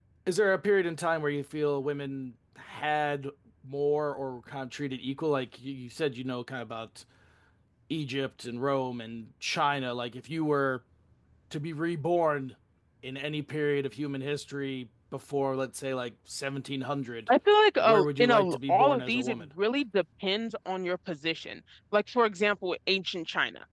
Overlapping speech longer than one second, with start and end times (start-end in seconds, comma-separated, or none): 17.8-19.5